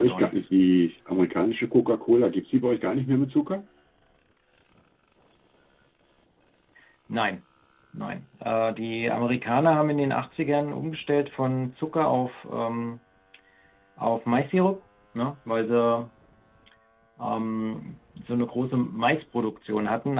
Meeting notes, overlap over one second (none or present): none